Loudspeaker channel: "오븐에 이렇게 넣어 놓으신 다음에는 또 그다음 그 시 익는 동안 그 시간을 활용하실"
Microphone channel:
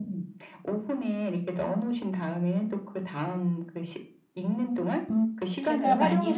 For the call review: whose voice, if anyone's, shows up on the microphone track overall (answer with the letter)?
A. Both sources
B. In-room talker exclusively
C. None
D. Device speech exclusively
A